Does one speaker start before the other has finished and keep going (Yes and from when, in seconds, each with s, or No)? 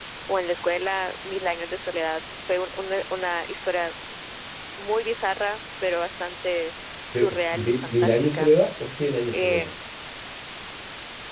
Yes, from 7.1 s